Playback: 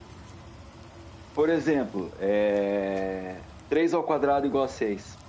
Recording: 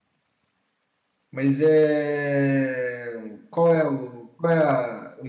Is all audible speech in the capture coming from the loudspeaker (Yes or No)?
No